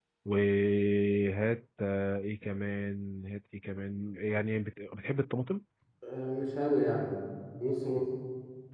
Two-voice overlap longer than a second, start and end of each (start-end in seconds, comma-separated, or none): none